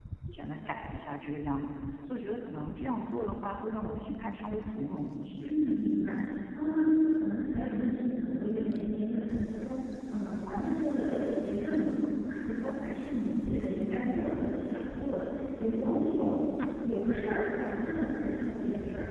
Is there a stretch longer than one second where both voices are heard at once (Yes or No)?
No